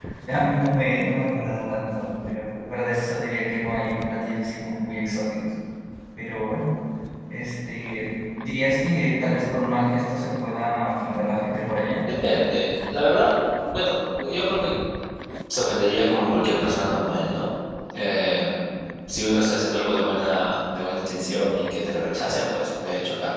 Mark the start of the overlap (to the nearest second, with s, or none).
none